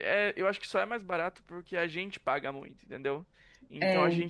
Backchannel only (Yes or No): Yes